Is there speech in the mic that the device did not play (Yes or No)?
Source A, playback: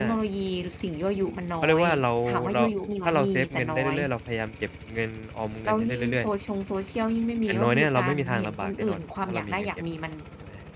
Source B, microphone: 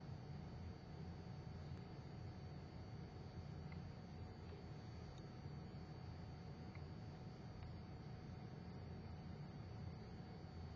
No